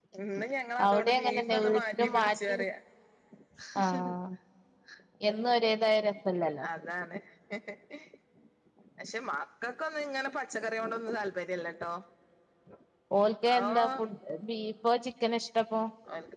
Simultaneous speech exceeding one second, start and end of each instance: 0.9-2.6

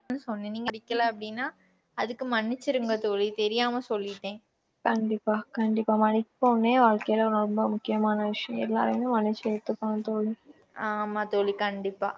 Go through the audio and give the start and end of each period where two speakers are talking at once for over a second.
none

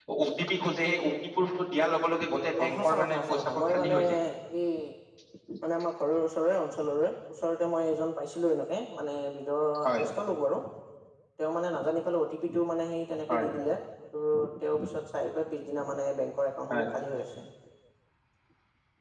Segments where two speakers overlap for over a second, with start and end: 2.6-4.0

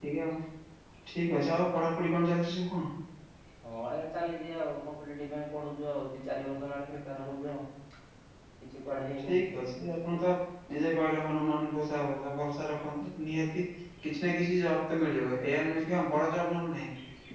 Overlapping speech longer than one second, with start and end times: none

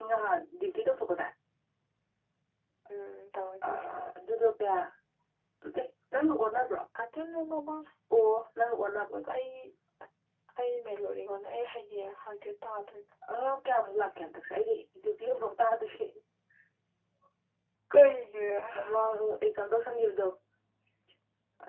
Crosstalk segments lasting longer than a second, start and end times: none

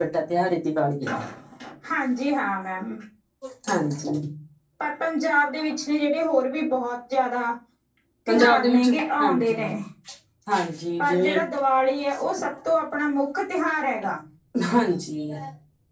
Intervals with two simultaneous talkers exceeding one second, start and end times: 8.3-9.7

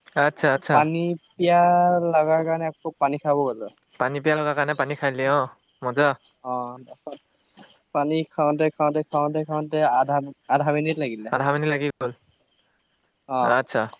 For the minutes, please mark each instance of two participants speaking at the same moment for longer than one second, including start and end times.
none

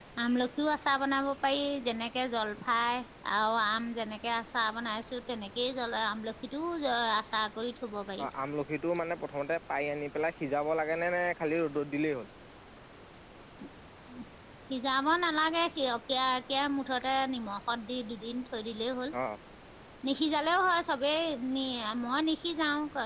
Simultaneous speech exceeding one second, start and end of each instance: none

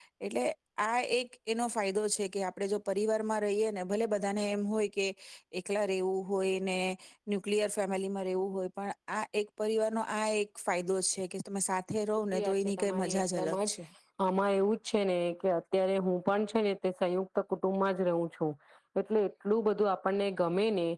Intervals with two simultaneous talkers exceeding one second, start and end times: 12.3-13.7

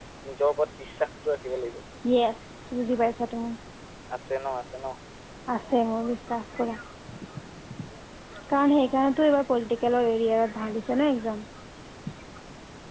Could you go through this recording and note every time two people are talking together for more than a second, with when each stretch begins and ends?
none

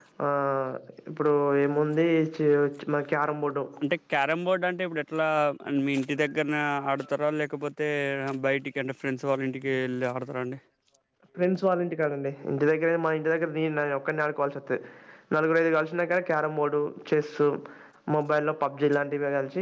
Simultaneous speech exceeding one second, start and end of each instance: none

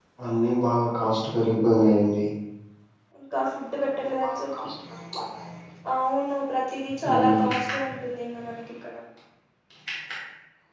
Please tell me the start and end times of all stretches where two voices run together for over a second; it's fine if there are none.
none

